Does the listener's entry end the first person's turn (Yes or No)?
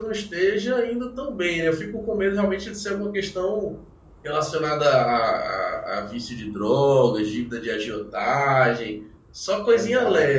Yes